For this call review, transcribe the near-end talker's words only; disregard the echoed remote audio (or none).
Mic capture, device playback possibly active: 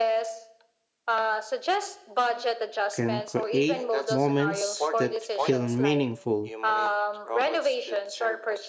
can create moments that feel meaningful.